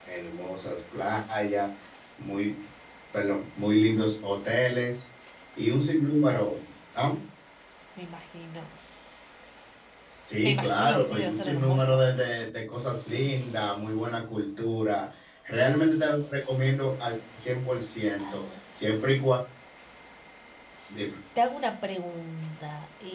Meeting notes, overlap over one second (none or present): present